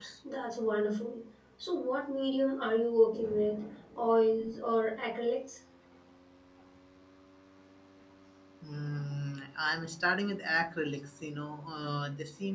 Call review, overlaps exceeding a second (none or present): none